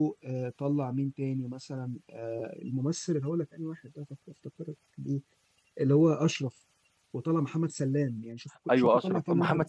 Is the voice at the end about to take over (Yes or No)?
Yes